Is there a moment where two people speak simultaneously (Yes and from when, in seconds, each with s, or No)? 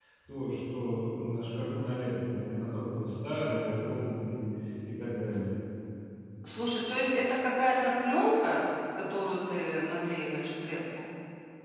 No